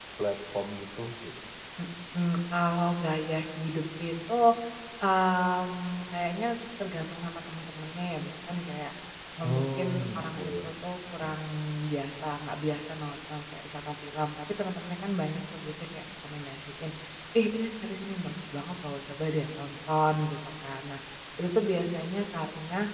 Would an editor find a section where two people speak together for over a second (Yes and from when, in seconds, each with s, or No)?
Yes, from 9.4 s